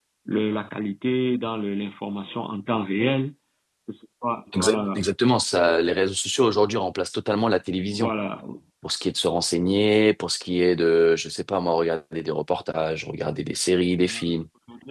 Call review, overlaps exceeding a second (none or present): none